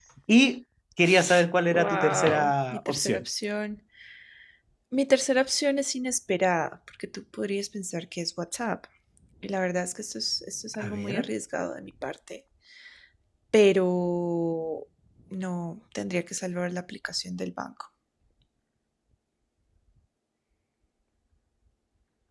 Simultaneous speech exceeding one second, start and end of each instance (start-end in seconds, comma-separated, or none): 1.7-3.2